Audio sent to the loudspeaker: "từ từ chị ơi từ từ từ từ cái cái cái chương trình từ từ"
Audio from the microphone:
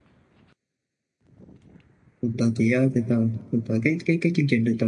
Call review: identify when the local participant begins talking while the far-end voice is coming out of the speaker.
none

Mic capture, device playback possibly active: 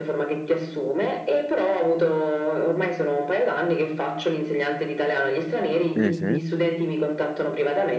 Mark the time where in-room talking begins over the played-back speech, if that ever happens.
6 s

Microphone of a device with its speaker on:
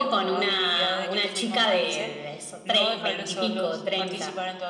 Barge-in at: none

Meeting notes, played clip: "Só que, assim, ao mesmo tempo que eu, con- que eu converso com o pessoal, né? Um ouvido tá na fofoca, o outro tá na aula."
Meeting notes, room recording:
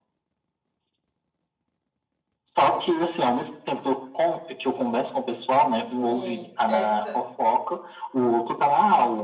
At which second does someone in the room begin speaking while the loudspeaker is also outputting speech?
6 s

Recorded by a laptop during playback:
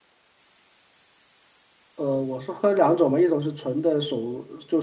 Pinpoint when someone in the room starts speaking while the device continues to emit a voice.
2 s

